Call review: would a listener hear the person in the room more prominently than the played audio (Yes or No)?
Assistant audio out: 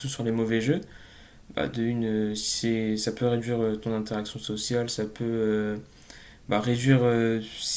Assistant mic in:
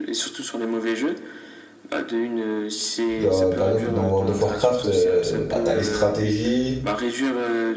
Yes